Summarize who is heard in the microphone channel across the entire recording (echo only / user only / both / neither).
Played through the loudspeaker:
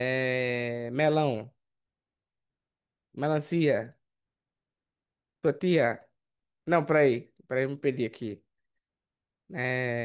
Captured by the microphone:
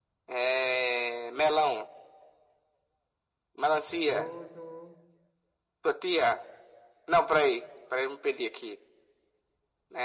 both